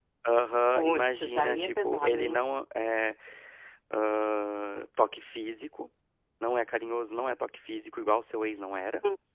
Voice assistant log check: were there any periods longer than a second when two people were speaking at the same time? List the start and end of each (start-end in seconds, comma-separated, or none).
0.8-2.4